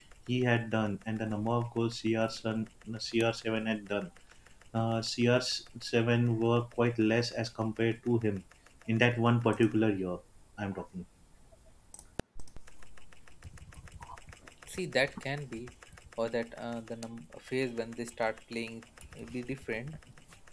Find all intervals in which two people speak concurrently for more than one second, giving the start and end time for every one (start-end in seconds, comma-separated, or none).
none